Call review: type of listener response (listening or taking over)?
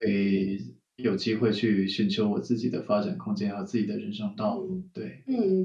taking over